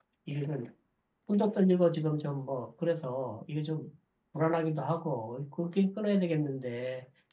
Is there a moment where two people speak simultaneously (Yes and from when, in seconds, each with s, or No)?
No